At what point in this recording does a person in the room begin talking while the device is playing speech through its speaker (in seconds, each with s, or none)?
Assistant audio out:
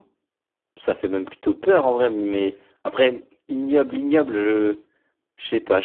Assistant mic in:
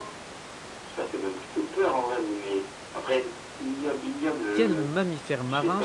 4.5 s